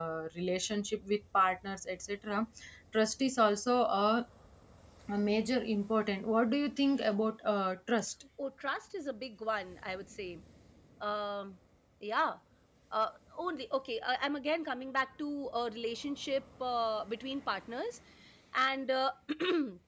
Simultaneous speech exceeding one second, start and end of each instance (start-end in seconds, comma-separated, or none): none